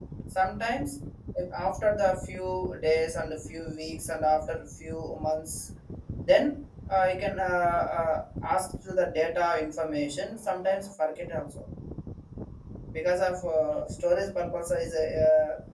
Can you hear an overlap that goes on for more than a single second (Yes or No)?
No